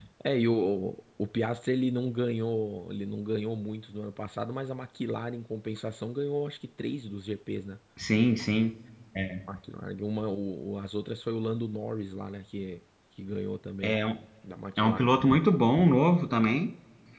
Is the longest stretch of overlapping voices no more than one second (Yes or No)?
Yes